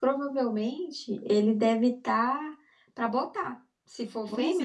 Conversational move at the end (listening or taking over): taking over